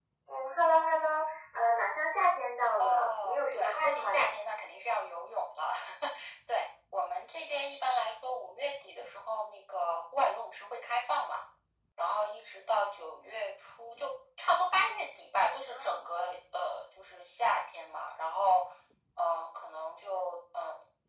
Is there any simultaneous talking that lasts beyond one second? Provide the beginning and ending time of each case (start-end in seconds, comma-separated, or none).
2.8-4.3